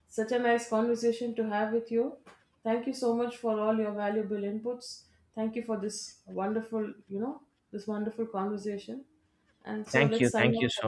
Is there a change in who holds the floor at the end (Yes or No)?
Yes